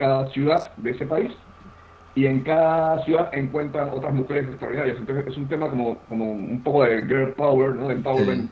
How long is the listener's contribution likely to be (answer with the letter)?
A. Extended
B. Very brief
B